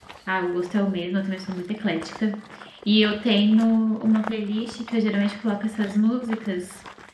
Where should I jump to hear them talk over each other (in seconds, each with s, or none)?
none